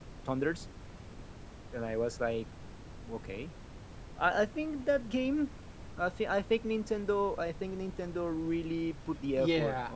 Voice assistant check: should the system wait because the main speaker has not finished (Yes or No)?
No